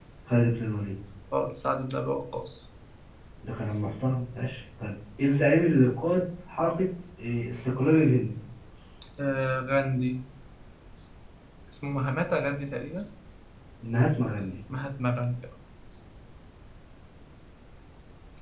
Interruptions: none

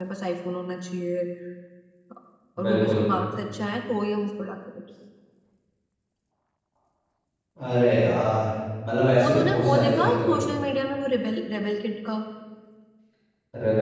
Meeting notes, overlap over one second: present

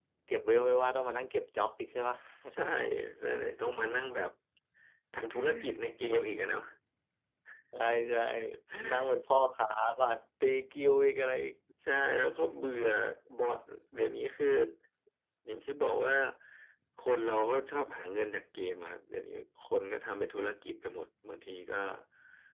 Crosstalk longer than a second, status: none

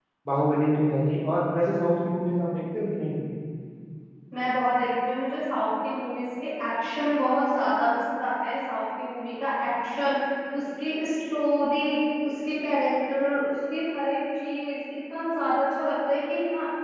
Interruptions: none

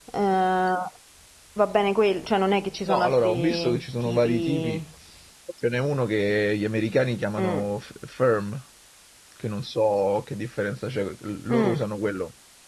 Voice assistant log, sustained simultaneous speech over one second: present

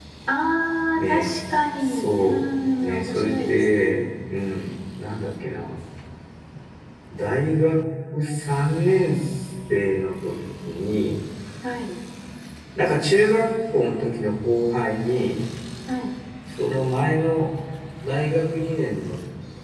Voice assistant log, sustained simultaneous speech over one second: present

